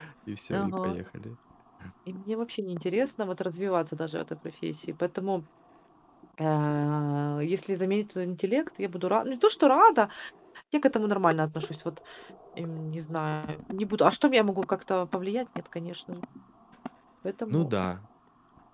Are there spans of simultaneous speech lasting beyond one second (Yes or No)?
No